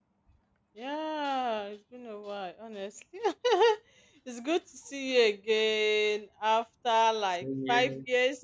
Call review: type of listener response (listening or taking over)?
listening